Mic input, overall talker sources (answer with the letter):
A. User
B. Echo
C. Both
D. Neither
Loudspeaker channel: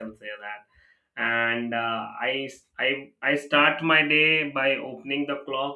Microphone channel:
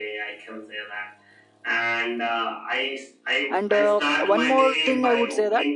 C